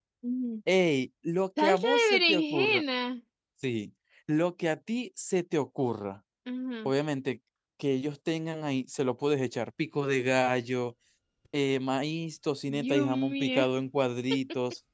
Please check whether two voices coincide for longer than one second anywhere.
Yes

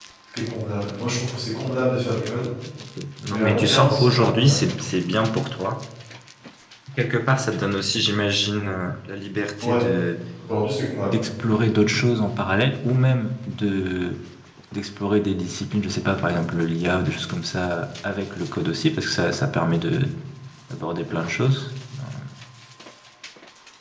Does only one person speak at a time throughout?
No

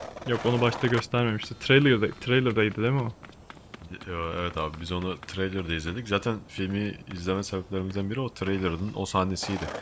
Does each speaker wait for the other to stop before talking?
Yes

